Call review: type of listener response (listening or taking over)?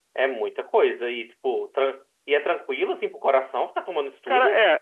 taking over